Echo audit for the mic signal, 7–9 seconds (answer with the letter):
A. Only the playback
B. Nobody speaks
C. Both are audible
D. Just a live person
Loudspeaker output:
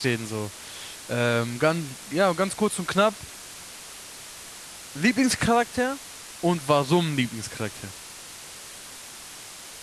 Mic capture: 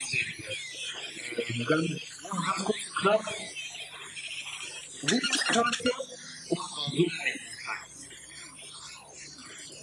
A